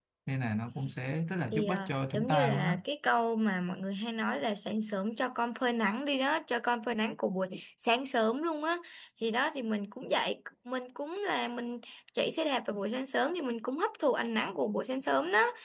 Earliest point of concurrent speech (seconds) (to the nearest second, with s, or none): 2 s